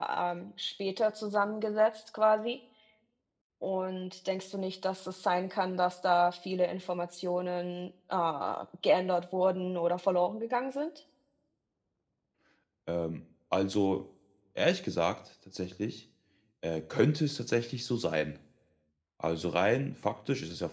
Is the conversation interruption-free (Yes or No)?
Yes